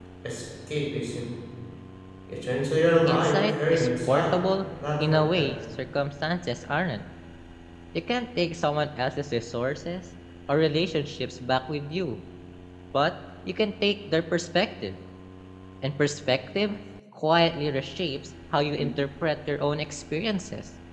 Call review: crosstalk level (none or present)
present